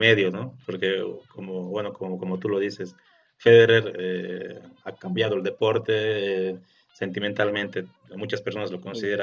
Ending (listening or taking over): listening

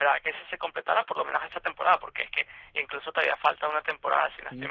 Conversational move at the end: taking over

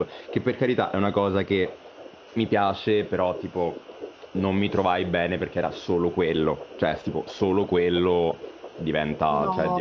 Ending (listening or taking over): listening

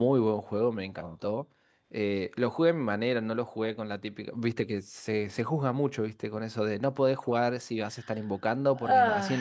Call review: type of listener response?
listening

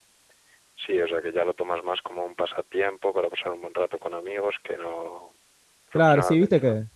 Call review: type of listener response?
taking over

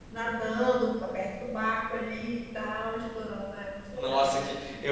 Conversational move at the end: taking over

